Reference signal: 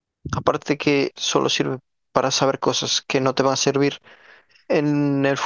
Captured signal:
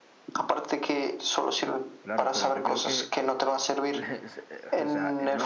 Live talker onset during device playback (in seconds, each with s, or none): 2.0 s